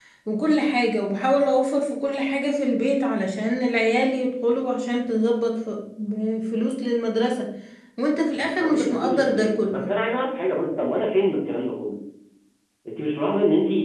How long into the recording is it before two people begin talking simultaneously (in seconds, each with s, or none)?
8.4 s